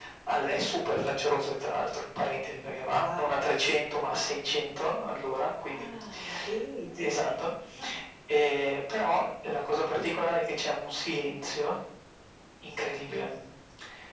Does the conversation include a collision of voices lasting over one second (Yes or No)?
No